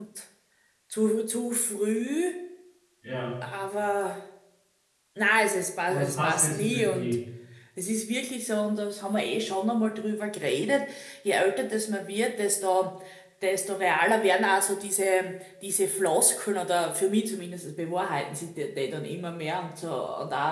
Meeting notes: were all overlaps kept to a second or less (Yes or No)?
No